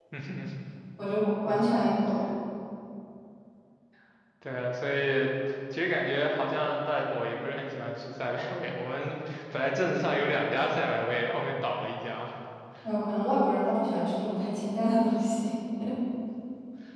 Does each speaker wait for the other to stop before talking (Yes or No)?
Yes